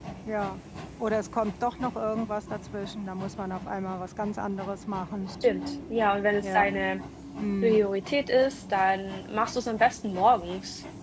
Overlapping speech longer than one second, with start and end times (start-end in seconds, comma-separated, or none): none